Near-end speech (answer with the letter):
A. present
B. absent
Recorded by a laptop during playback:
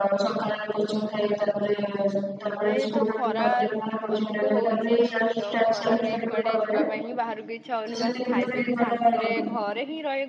A